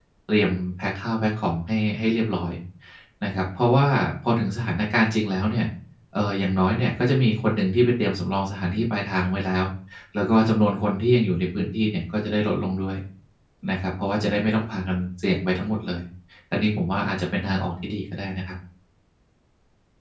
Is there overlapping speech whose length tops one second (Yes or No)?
No